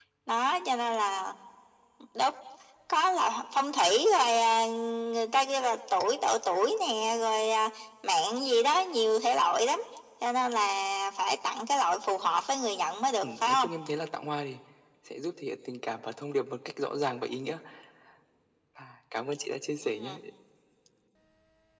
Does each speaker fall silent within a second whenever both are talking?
Yes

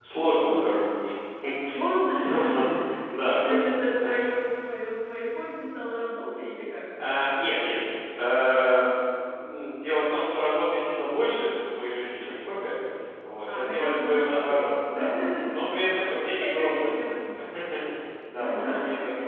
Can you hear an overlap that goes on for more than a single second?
Yes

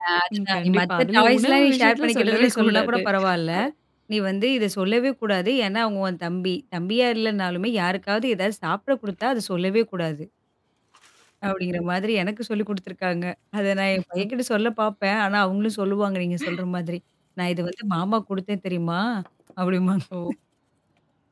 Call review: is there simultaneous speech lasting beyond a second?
Yes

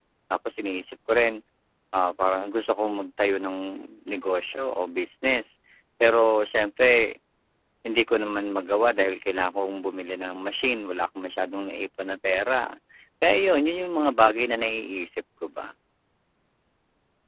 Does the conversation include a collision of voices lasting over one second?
No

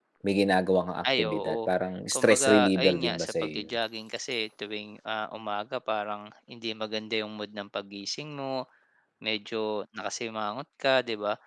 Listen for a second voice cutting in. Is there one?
Yes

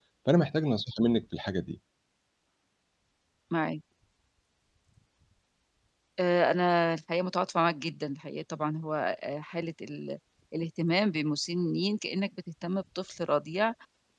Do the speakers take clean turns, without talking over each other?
Yes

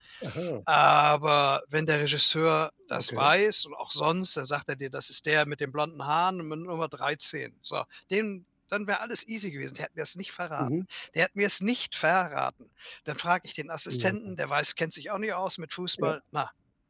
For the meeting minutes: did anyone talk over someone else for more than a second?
No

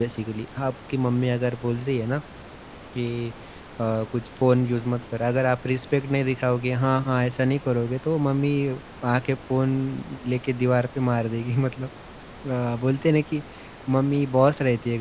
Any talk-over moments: No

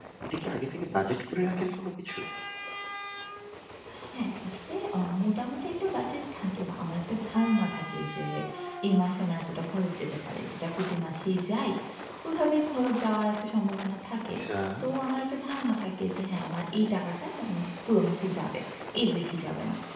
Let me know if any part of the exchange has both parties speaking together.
No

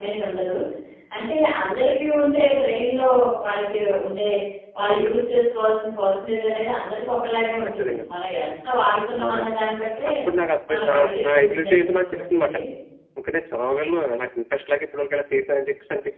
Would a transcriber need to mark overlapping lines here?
Yes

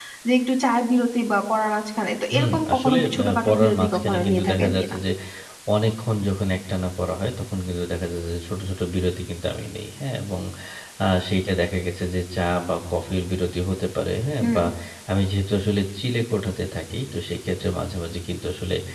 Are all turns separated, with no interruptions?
No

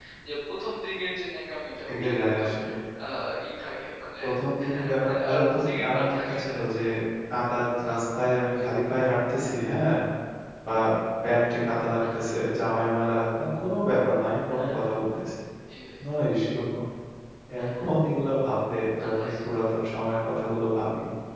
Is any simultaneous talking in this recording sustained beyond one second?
Yes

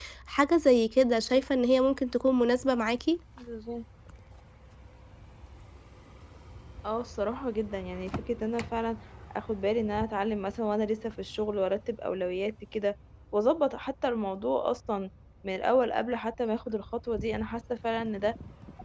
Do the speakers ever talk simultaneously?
No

